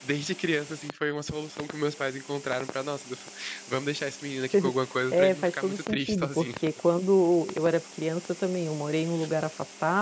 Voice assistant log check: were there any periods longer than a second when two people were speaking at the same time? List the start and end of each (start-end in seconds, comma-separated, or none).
5.1-6.5